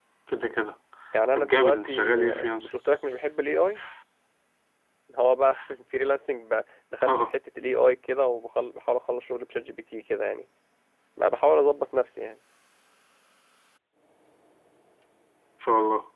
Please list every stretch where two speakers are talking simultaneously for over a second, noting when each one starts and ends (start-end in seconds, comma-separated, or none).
1.3-2.7